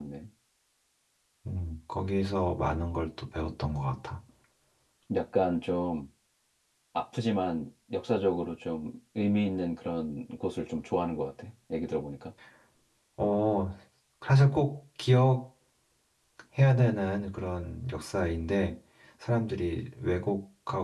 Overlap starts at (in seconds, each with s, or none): none